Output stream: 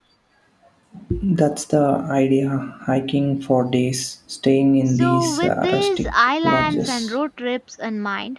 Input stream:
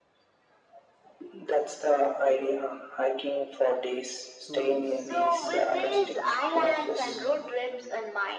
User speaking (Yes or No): Yes